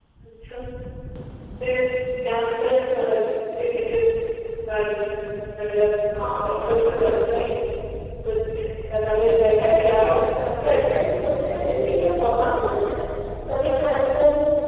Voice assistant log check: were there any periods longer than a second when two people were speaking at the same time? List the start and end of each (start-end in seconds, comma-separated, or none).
9.6-10.8